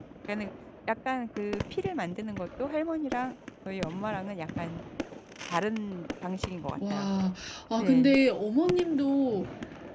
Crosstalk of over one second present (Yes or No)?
No